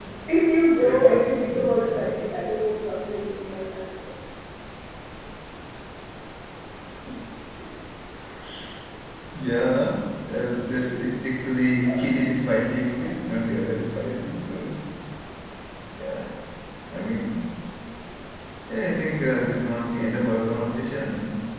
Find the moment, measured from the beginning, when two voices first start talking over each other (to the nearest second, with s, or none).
1 s